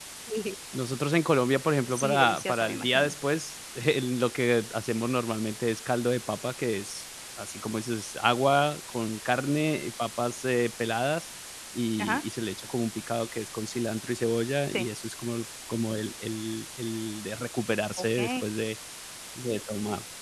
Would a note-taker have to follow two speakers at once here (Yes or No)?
Yes